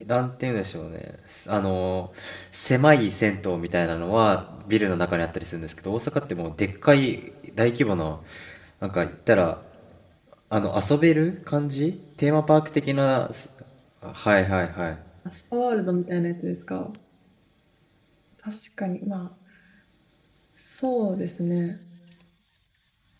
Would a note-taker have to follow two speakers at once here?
No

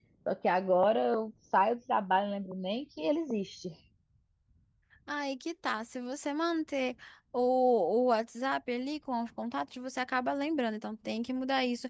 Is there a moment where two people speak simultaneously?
No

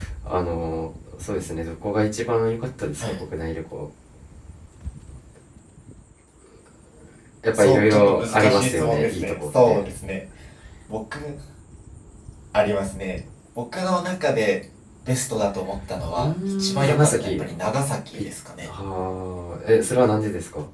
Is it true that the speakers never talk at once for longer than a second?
No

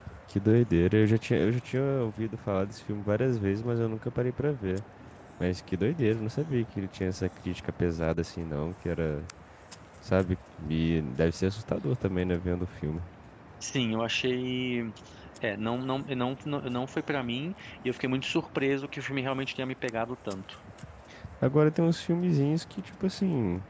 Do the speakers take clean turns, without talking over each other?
Yes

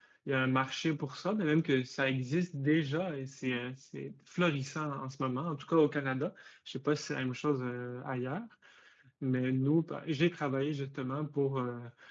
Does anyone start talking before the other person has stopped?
No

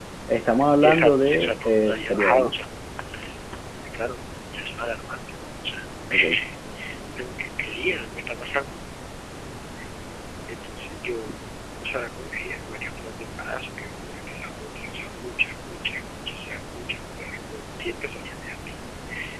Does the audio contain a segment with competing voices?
Yes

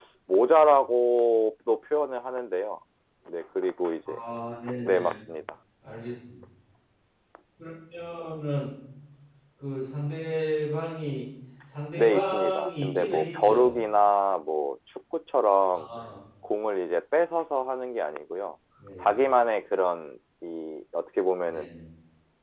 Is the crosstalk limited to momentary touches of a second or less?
No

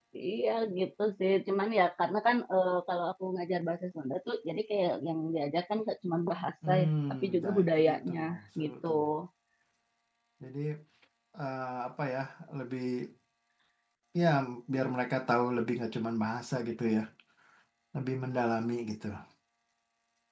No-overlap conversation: No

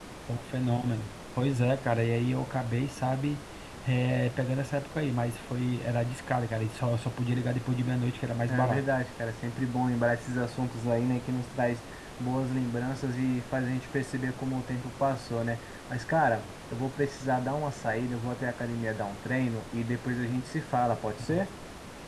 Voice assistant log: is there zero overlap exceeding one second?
Yes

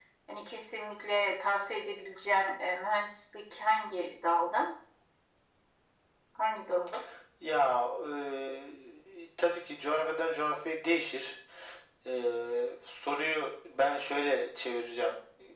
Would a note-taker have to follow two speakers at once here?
No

